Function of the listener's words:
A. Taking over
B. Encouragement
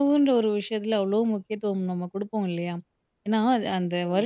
B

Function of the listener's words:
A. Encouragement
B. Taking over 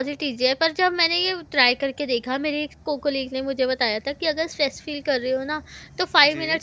A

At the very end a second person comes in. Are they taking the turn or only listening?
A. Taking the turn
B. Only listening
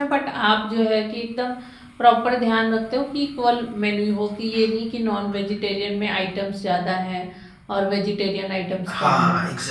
A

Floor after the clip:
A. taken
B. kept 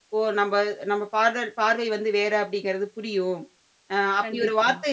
B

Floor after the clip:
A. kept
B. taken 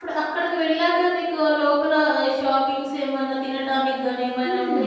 B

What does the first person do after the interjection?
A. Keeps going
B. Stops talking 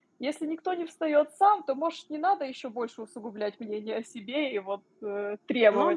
B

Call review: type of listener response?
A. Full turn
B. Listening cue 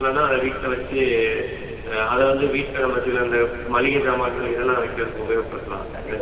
A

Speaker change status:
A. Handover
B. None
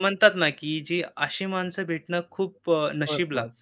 B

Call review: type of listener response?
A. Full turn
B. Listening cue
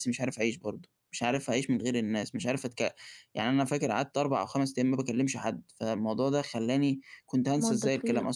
B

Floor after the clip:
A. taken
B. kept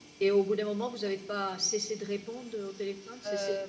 A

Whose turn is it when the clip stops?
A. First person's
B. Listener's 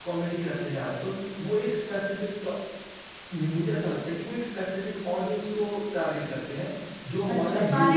B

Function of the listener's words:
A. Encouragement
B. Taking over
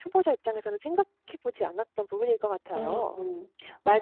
B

